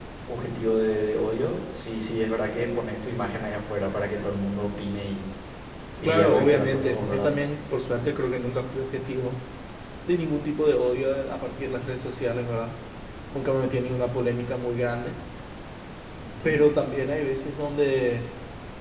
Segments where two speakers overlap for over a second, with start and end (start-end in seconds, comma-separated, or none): 6.0-7.3